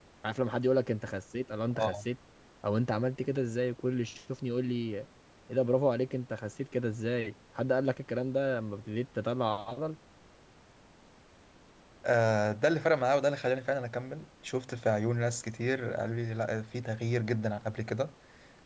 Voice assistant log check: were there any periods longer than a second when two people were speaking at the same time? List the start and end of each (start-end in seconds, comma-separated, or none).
none